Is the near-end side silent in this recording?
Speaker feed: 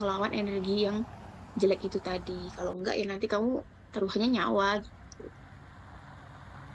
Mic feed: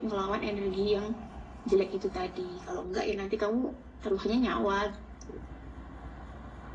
Yes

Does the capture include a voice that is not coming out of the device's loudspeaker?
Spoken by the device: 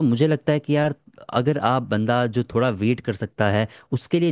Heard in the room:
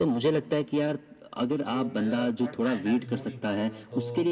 Yes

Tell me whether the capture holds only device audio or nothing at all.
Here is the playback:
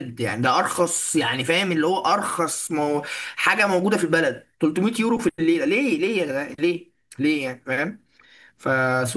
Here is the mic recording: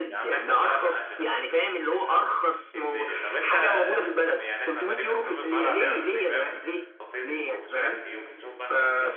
No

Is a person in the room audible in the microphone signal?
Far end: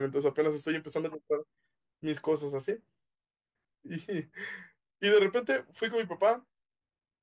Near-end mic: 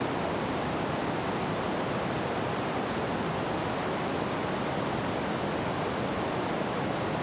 No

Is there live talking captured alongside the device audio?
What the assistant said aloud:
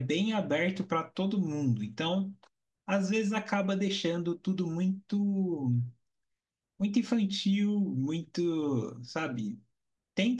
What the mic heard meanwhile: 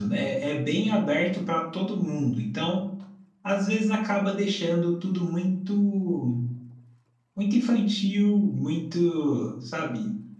No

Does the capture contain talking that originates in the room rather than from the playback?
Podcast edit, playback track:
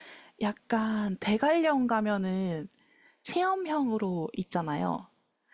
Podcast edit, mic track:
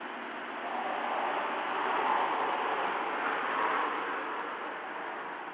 No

